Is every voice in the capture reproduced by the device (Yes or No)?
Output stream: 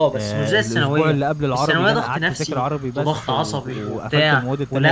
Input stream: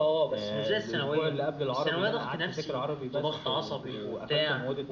Yes